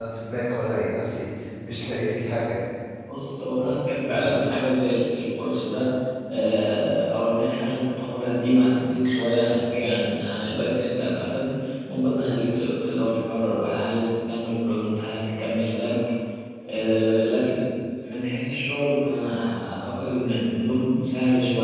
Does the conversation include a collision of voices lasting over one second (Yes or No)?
No